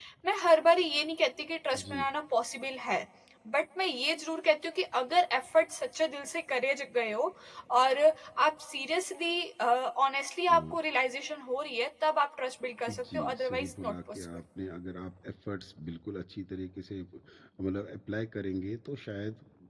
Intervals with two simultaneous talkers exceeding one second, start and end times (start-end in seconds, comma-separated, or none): 12.9-14.2